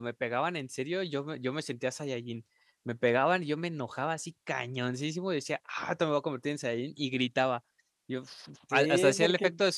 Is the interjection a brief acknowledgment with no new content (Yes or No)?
No